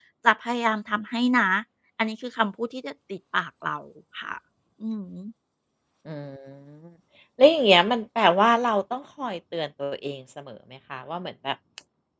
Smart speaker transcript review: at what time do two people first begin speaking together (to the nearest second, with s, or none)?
none